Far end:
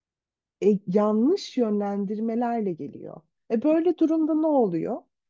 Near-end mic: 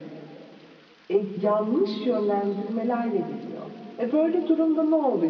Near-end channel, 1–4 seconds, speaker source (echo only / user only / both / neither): echo only